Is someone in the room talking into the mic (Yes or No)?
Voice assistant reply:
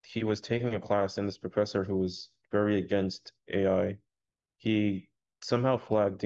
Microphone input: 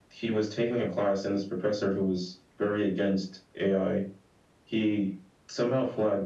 No